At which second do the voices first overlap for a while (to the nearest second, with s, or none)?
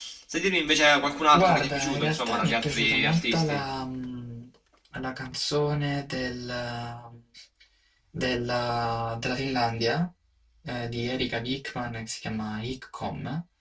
1 s